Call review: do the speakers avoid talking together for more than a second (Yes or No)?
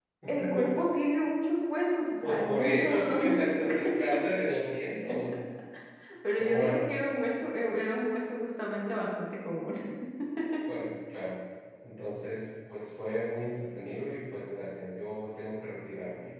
No